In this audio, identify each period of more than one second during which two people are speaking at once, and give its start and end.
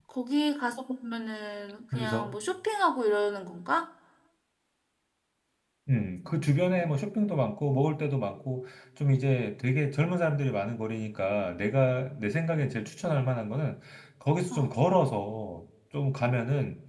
none

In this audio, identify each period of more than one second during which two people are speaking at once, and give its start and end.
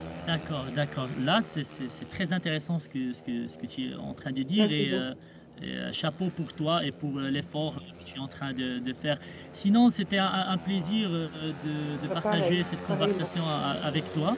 12.1-13.3

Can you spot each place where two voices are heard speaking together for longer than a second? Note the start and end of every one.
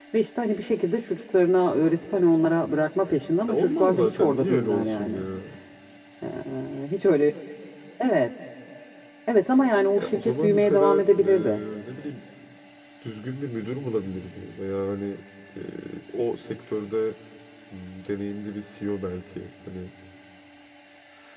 3.5-5.2, 10.0-11.6

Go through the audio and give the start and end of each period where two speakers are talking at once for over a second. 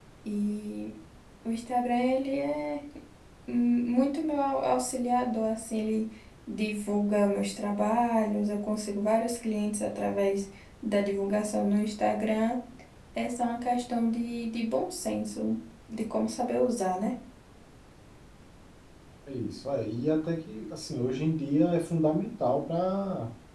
none

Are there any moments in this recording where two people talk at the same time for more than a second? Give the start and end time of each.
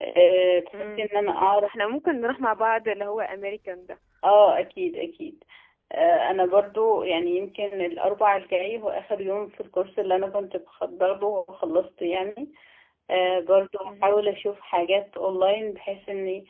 none

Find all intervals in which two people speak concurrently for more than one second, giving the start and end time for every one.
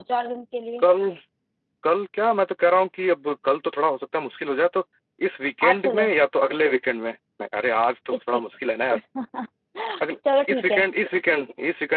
none

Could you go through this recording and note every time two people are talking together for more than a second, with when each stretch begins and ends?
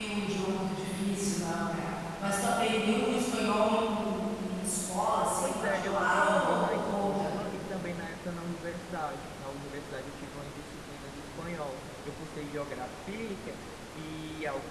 5.4-7.4

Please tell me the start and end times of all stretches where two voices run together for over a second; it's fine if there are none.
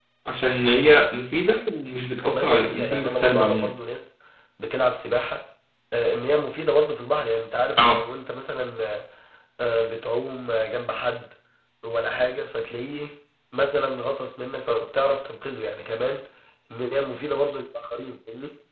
2.2-3.7

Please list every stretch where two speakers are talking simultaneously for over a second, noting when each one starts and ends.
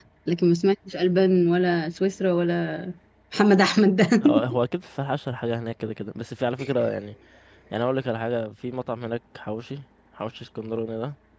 none

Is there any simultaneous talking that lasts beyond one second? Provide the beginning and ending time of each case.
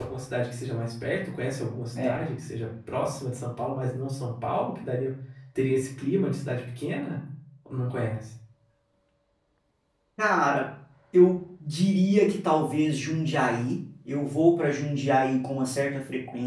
none

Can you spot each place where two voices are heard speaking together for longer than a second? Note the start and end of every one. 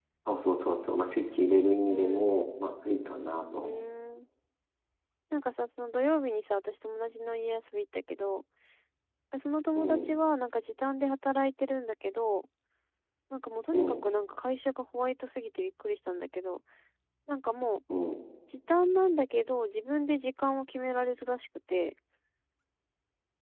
none

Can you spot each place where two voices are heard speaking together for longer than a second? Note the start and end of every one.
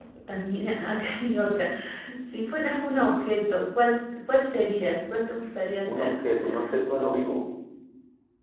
none

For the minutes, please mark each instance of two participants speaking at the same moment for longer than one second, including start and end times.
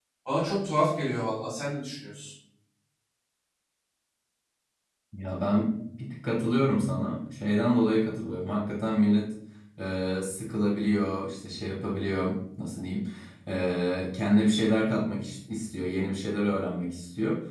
none

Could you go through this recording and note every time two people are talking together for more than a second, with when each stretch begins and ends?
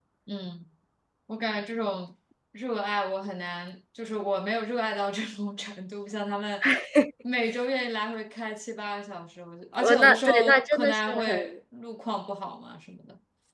9.8-11.6

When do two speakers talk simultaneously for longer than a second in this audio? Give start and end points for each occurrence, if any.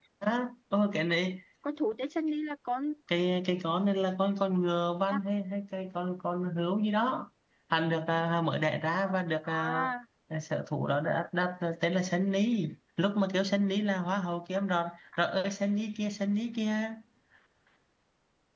none

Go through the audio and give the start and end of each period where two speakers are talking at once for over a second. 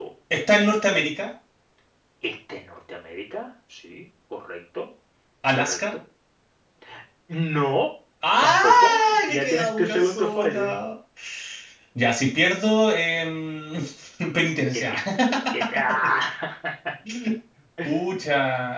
8.4-10.8

